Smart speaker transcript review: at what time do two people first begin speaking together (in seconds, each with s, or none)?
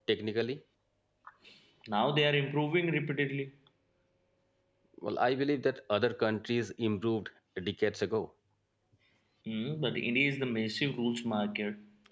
none